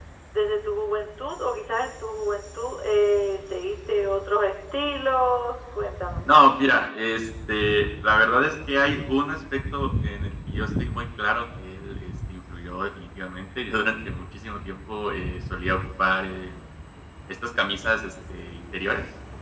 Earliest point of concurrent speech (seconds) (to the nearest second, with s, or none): none